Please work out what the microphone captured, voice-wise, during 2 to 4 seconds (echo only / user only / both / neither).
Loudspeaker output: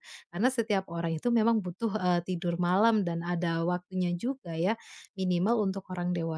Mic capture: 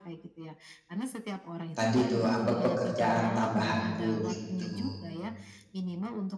both